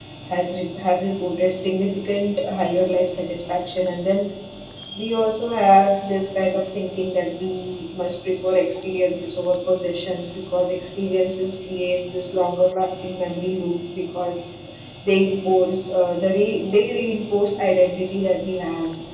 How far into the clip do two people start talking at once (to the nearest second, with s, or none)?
none